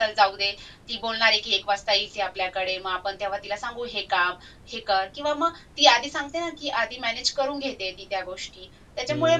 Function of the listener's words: taking over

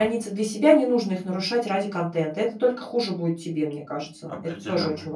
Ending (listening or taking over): taking over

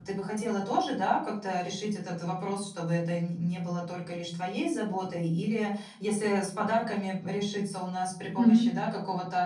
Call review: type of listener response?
listening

